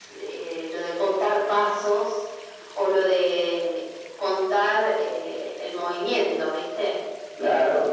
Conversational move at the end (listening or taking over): taking over